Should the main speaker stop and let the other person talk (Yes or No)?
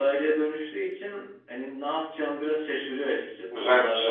No